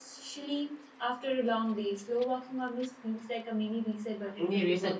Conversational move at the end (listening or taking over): taking over